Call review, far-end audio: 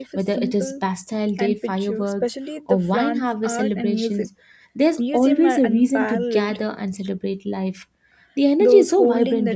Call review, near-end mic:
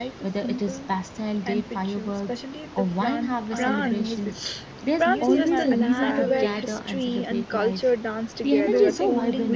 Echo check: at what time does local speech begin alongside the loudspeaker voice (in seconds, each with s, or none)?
3.5 s